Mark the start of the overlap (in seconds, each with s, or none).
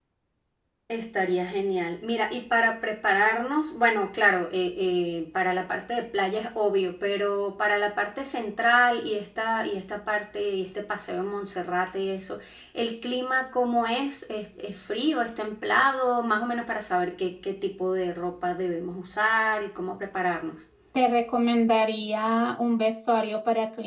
none